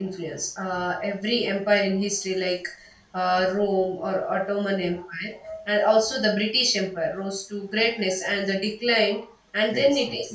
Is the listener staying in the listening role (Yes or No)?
Yes